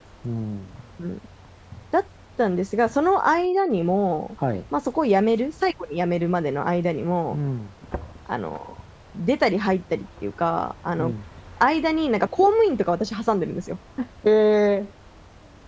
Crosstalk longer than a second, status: none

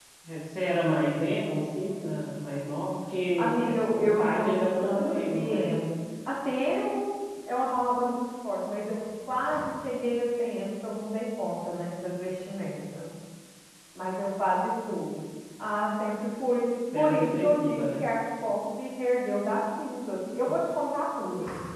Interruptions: present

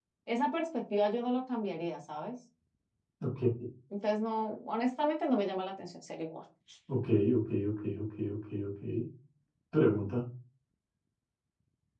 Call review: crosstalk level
none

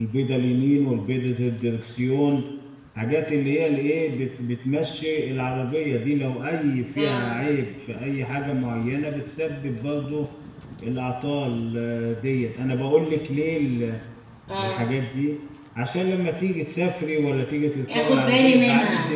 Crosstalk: present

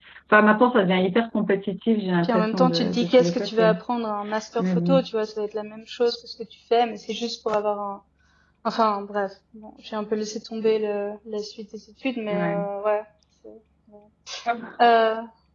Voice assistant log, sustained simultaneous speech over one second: present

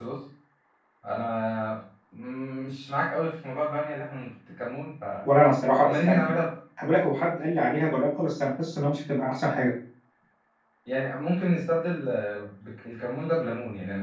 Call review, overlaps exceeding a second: none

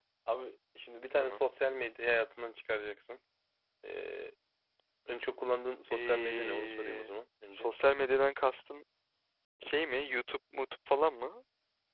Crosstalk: present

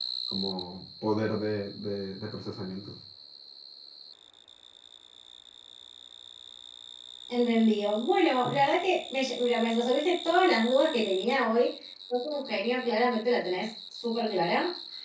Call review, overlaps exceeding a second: none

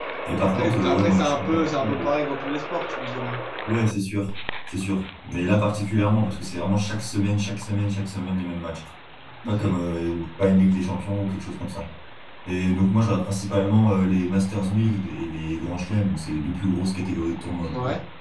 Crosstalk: present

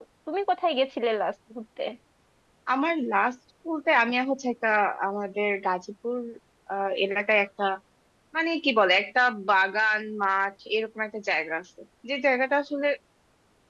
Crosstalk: none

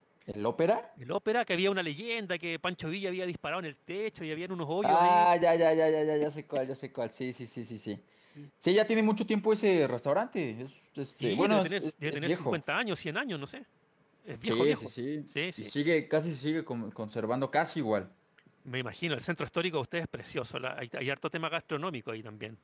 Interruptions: present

